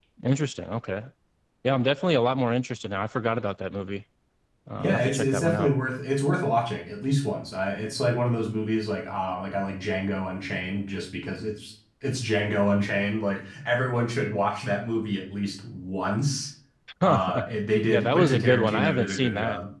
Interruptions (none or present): present